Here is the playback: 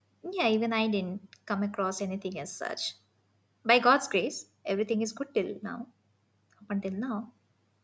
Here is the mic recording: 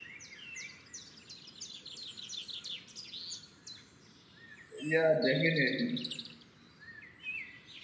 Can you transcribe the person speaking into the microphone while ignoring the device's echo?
Yeah, definitely.

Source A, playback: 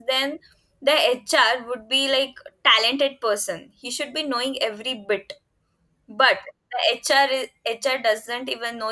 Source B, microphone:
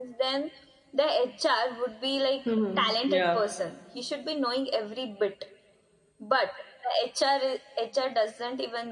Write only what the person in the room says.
hmm Yeah,

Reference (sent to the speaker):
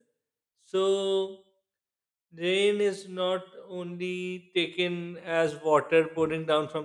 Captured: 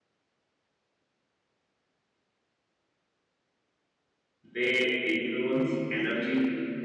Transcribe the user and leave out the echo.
They influence energy,

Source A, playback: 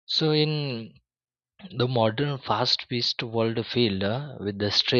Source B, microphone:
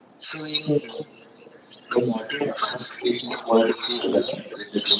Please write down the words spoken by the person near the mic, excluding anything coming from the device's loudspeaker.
none

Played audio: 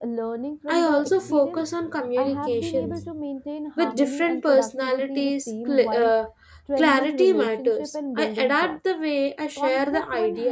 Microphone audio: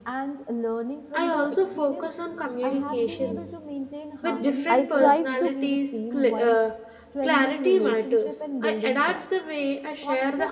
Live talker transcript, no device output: I strive to

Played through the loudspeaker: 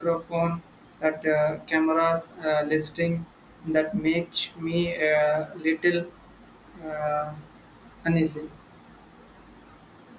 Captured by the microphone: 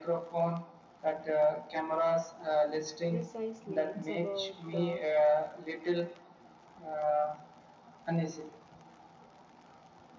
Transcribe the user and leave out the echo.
Precisely, it's about uh,

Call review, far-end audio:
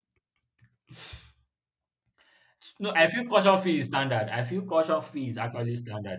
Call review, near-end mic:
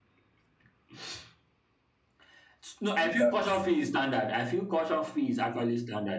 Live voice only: Exactly.

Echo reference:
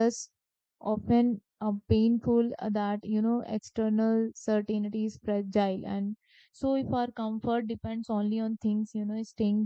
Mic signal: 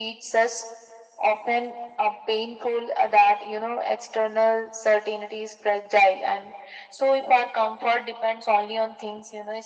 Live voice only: none

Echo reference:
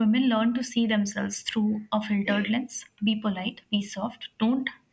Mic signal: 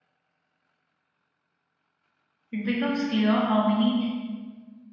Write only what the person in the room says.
it becomes clear how many

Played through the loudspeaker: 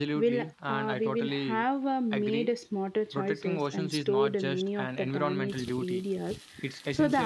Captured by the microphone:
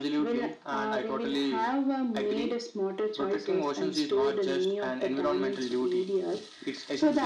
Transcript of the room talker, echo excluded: none

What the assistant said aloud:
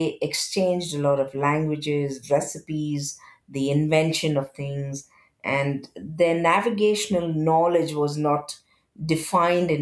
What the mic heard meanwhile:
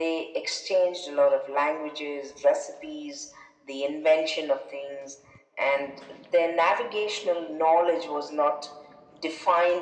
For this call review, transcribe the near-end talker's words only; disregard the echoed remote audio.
none

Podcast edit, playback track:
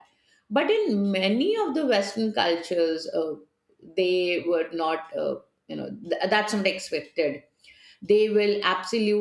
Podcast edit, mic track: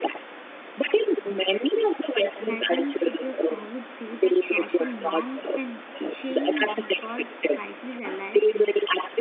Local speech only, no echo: and I think for this, I would say that social norms can change because society is alive

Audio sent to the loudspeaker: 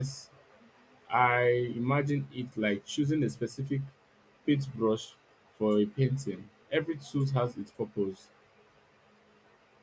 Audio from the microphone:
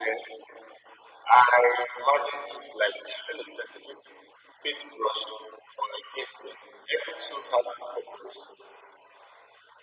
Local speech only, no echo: none

